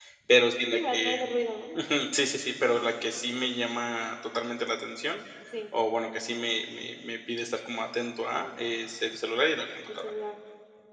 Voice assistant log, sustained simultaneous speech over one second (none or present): none